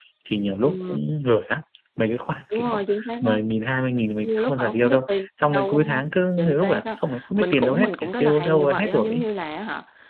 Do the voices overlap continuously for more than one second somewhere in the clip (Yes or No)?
Yes